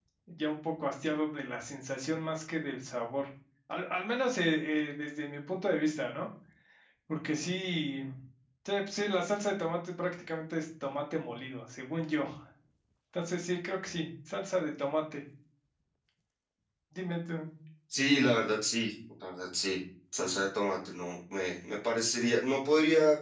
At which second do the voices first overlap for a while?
none

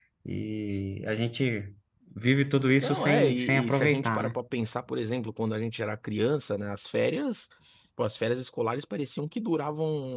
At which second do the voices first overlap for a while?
2.8 s

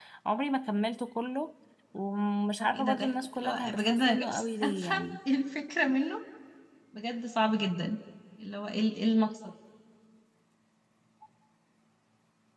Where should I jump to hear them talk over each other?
2.6 s

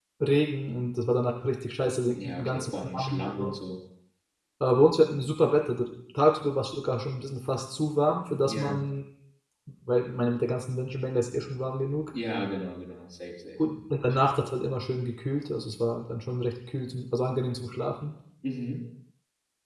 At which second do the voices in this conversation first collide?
2.1 s

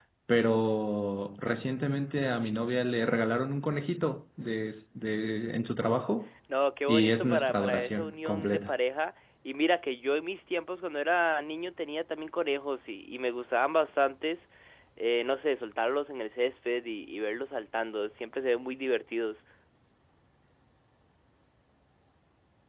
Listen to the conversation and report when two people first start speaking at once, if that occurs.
6.9 s

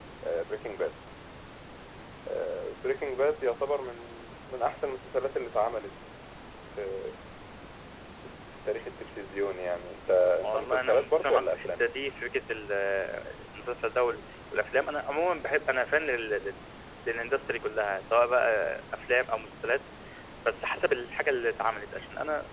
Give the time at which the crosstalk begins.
10.4 s

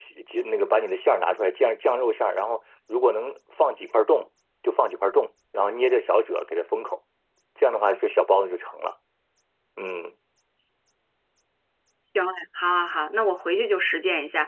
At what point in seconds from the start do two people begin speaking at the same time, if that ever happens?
none

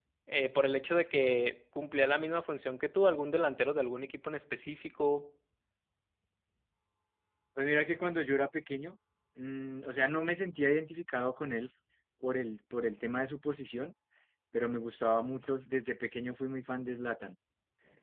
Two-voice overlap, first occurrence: none

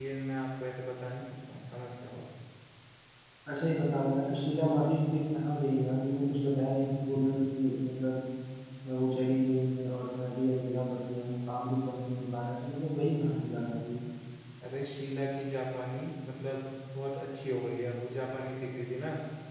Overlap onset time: none

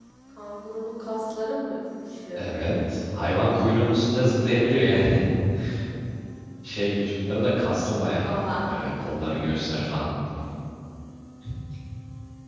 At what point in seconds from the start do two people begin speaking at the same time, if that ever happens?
none

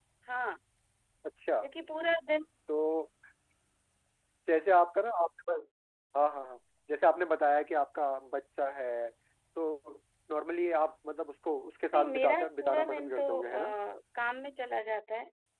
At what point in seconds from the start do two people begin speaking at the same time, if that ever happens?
11.9 s

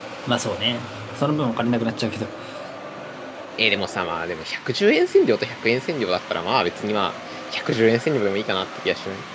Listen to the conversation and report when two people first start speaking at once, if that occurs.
none

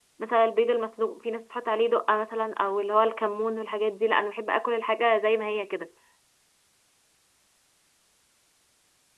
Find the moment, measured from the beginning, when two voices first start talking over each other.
none

